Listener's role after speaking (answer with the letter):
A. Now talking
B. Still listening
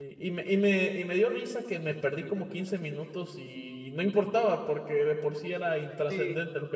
A